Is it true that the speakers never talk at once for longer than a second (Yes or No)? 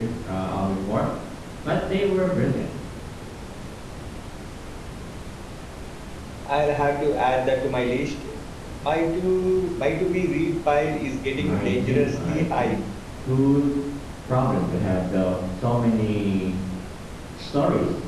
No